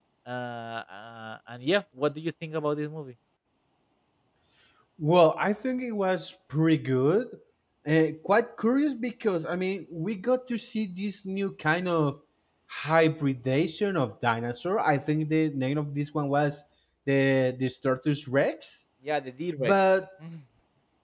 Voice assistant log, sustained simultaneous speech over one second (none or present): none